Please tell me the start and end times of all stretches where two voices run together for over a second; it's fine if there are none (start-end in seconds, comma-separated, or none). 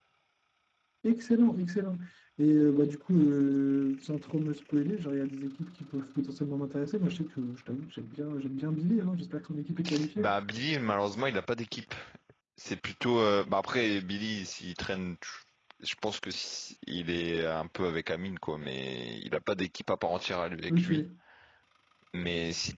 none